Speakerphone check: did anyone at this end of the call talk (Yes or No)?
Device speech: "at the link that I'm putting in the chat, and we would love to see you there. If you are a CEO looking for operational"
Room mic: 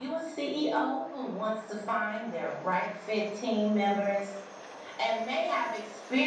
Yes